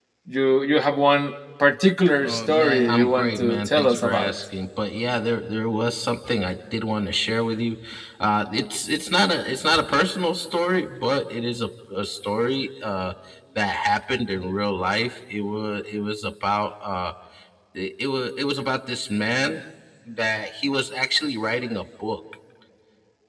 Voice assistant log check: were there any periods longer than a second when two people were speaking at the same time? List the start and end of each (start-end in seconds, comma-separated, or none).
2.2-4.3